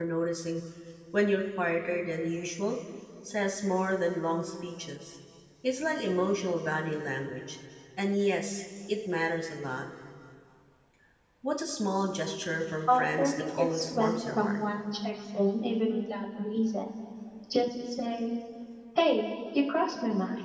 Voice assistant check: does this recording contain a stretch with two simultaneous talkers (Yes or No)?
Yes